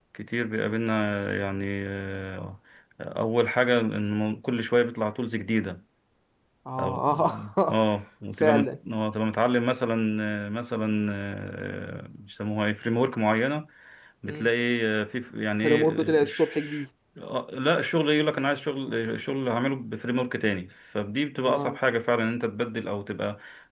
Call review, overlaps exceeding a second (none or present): present